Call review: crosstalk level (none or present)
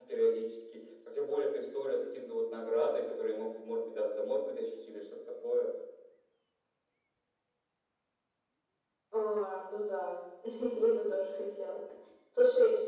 none